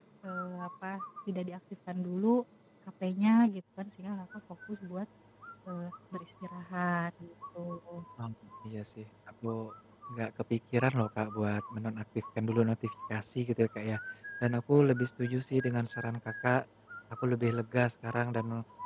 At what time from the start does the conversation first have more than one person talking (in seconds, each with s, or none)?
none